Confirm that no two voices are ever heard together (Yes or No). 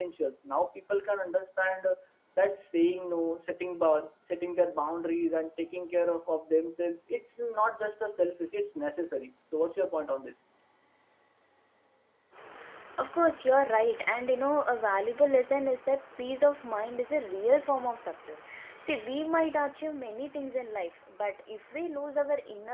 Yes